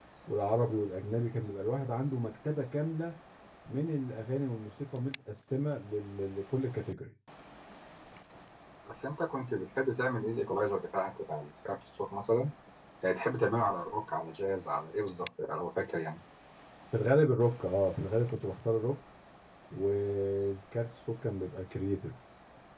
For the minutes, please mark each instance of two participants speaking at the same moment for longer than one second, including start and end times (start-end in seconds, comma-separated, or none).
none